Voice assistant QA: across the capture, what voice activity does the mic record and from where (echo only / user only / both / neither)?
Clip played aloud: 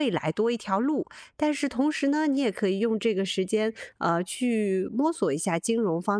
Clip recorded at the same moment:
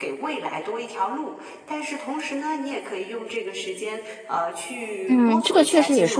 both